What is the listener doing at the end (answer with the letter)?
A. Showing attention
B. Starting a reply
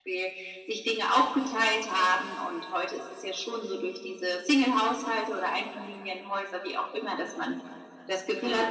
A